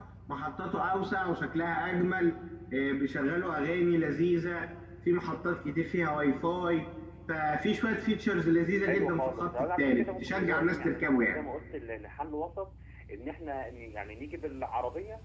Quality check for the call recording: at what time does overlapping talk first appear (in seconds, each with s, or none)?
8.9 s